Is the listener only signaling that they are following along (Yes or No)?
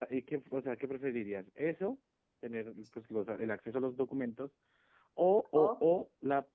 Yes